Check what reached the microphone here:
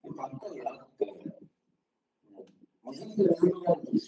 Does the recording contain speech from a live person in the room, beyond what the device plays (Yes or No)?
No